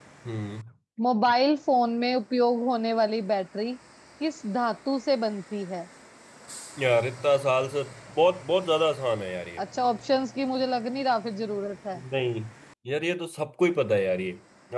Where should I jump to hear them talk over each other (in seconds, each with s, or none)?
none